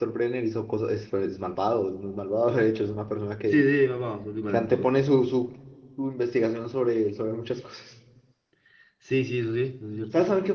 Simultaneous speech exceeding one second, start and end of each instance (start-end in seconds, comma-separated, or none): none